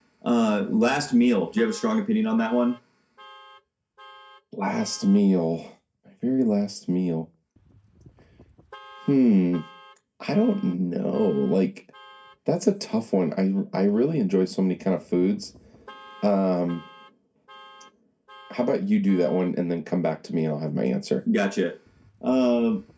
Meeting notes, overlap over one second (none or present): none